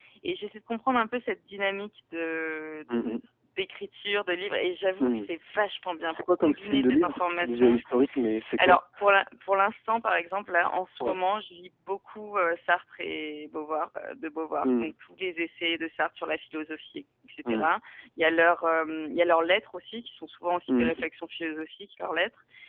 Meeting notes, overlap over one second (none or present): present